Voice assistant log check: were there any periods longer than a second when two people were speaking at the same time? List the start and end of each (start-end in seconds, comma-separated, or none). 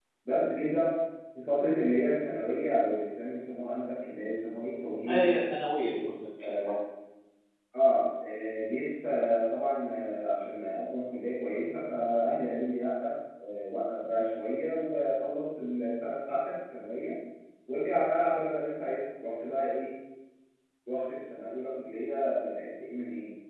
none